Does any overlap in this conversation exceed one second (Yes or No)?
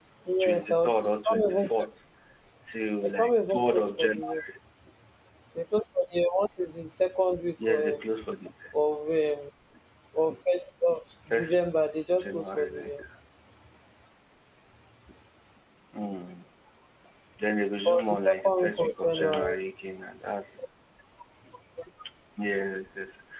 Yes